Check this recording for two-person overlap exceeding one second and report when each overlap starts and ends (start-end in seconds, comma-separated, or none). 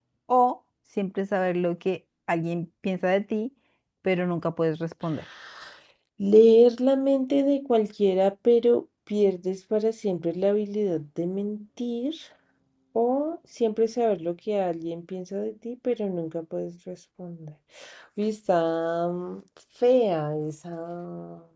none